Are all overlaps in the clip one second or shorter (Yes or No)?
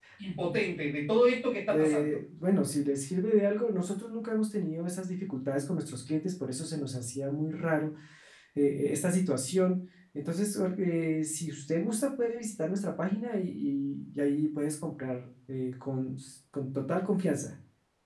Yes